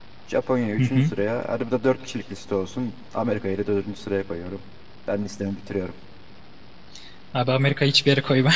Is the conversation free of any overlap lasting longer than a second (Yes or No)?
Yes